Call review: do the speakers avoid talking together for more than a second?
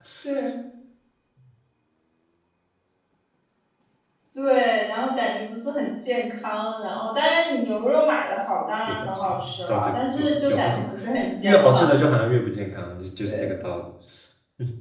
No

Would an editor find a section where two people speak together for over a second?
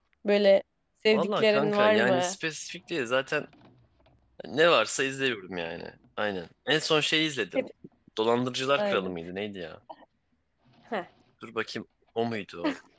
Yes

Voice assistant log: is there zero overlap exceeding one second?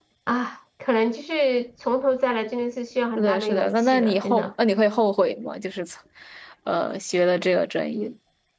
No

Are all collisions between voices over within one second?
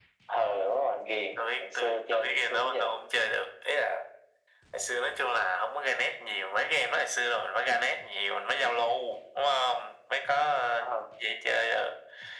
No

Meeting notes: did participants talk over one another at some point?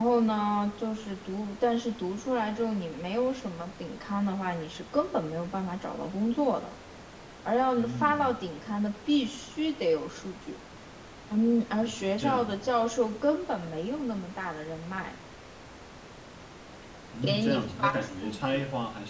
Yes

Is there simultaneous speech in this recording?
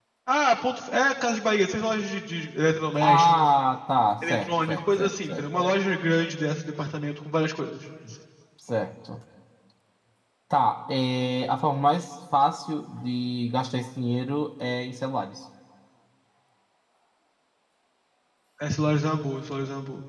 Yes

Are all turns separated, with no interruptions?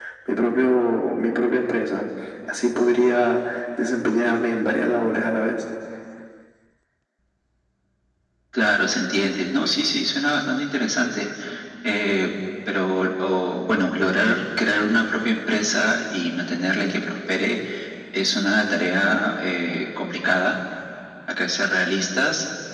Yes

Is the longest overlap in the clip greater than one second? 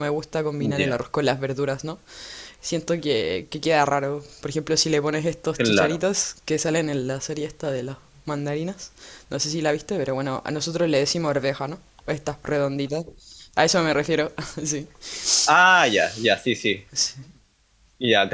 No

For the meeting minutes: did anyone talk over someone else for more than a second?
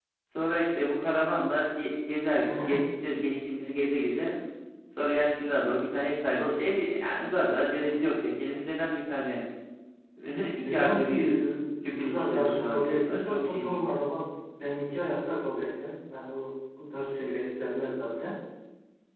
Yes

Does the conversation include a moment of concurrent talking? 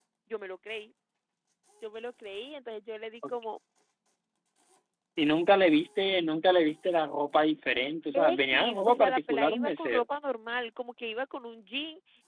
Yes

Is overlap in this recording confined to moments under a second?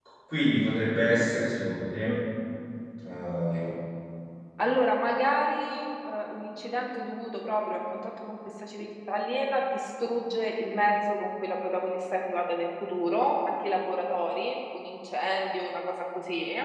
Yes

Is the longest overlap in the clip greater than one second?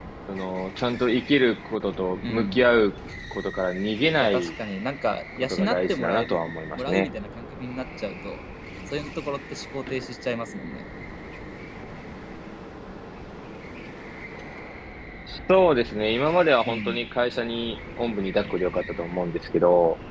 Yes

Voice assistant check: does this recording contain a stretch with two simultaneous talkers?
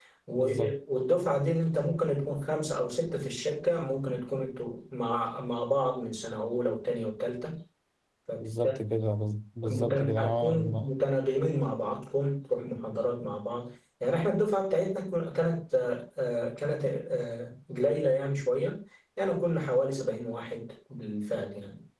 Yes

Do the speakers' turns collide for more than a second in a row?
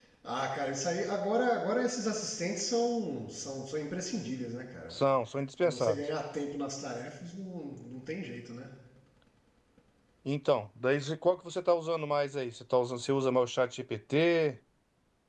No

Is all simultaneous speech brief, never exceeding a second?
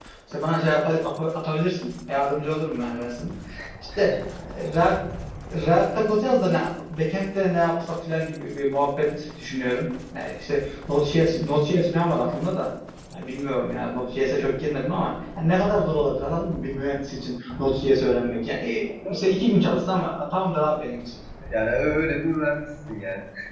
Yes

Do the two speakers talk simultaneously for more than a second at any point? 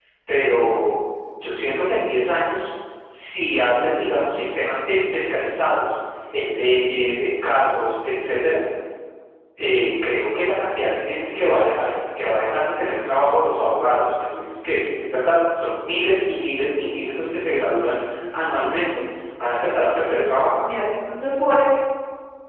No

